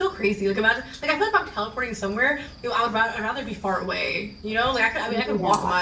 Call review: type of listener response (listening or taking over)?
listening